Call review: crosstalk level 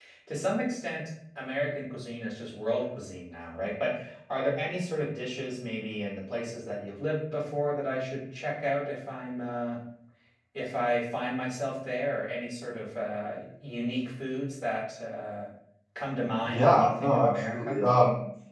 present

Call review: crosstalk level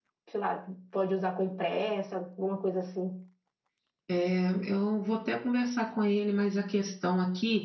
none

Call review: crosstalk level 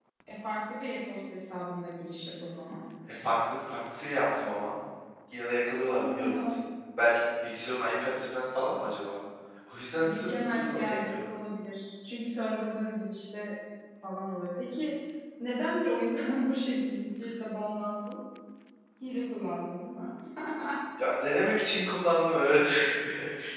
present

